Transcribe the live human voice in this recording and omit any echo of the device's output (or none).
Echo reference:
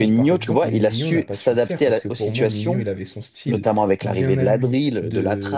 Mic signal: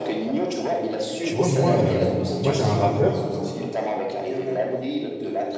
Tu vois, moi, euh, moi j'ai un rappeur,